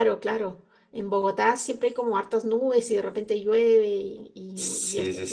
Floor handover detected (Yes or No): Yes